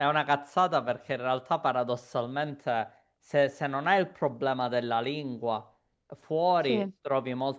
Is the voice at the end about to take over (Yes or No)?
No